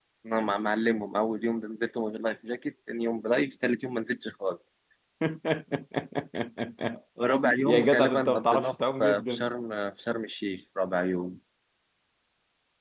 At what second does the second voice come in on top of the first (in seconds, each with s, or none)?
7.7 s